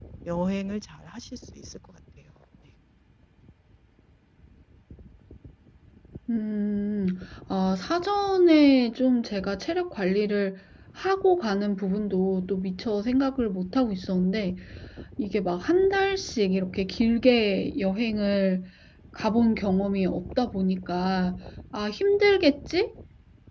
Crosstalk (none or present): none